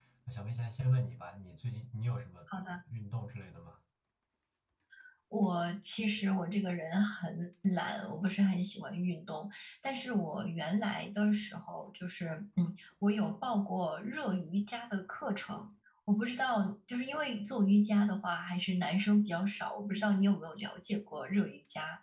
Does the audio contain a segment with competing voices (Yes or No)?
No